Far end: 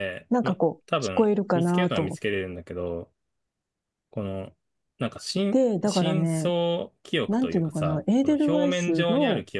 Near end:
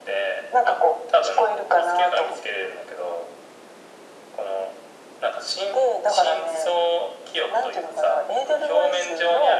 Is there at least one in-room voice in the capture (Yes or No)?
No